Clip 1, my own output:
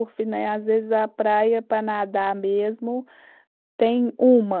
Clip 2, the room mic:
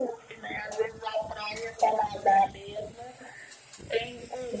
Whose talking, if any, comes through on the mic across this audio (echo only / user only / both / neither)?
echo only